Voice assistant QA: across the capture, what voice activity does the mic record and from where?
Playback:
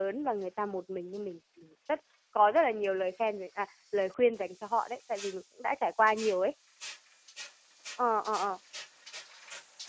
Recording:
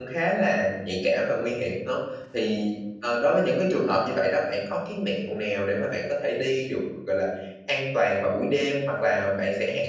user only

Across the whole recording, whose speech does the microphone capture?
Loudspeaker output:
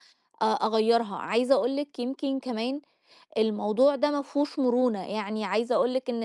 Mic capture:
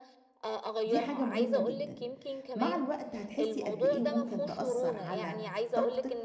both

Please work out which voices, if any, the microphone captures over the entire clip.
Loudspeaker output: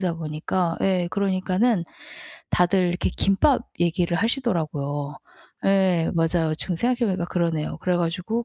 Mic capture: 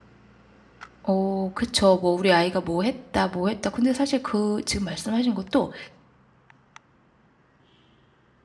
user only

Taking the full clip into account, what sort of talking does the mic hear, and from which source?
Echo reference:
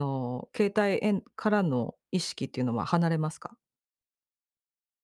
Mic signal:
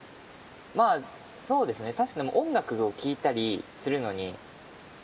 user only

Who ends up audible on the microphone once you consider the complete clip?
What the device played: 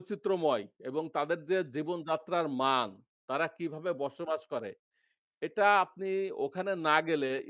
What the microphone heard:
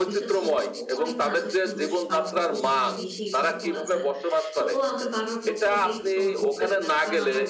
both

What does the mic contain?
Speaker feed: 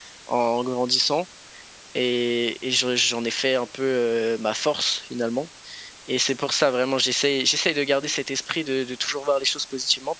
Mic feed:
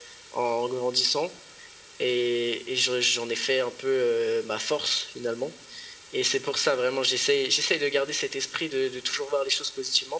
echo only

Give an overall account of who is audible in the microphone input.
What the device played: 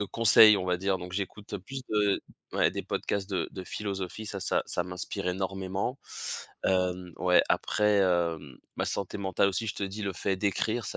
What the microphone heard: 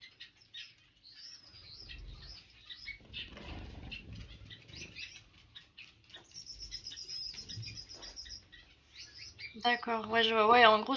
user only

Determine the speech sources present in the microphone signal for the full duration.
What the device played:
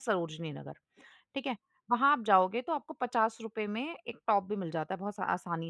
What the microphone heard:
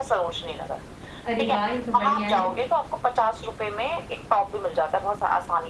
both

